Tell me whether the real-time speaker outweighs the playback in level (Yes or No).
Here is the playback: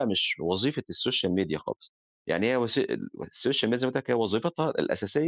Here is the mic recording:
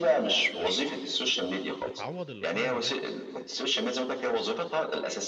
No